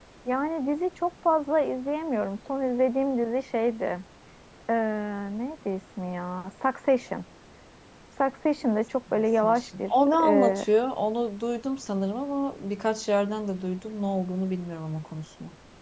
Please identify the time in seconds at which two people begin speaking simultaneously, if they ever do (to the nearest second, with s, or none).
9 s